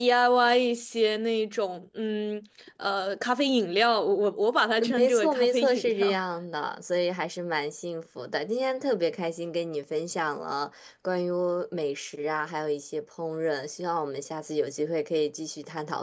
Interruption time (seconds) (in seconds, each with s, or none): 5.0 s